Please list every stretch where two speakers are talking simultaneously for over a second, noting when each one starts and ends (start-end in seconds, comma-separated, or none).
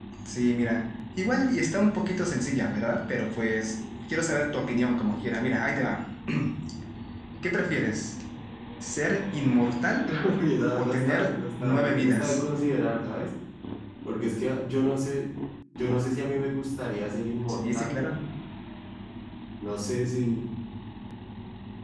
10.8-12.4